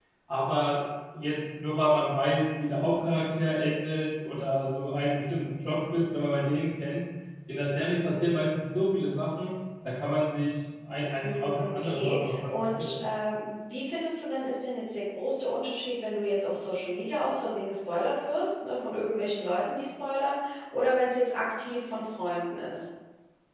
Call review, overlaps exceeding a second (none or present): present